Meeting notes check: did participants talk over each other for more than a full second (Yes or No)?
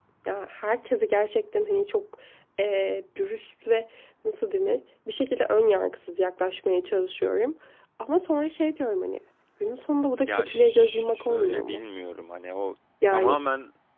Yes